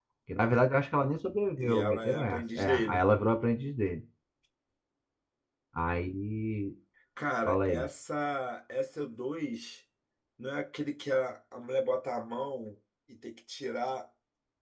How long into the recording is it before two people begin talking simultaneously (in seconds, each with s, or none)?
1.6 s